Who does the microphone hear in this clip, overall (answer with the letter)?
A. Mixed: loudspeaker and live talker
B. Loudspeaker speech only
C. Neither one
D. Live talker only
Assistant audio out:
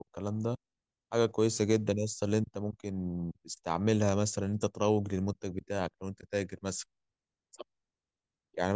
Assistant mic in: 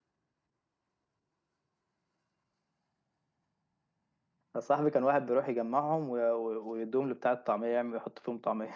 D